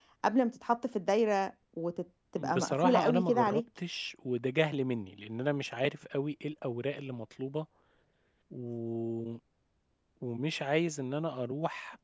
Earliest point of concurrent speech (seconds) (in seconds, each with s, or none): 2.4 s